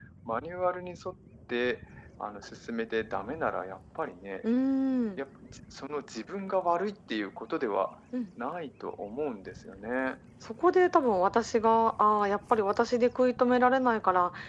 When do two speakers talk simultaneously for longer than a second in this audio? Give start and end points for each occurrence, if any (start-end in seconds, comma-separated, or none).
none